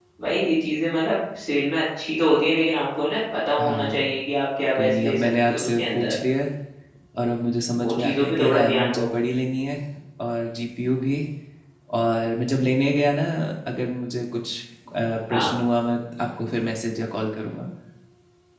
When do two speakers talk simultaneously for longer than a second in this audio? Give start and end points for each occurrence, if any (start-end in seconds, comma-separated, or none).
4.8-6.1, 7.8-9.1